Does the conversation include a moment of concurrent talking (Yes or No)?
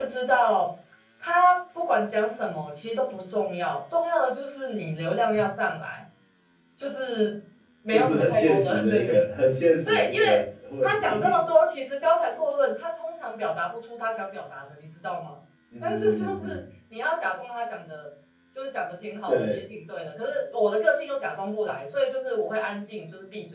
Yes